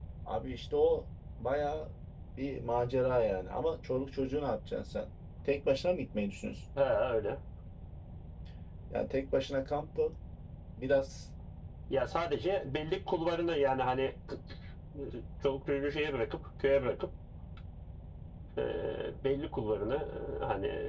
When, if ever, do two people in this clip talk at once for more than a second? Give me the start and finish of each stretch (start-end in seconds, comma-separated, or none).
none